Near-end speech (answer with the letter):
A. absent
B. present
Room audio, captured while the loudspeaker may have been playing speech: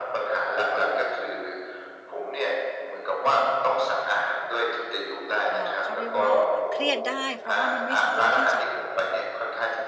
B